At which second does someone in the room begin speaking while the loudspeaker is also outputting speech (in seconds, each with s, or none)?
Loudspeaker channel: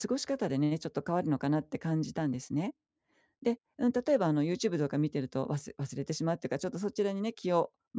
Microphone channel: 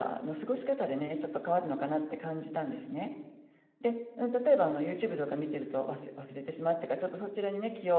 none